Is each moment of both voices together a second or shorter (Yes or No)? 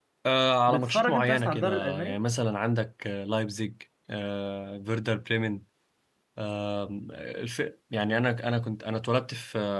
No